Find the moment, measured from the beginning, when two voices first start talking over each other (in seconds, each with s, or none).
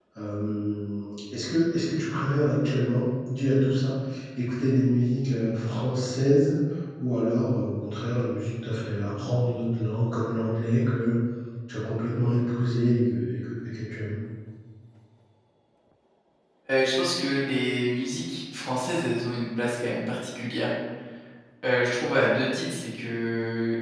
none